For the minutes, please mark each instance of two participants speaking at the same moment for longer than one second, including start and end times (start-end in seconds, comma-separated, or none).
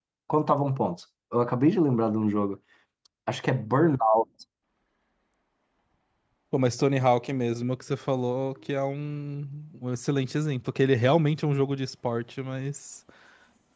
none